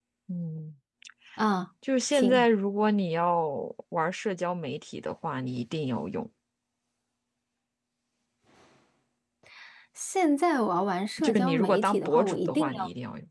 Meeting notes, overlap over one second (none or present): present